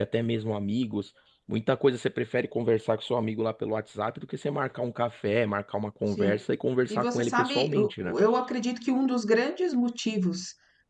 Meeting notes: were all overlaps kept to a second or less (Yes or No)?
No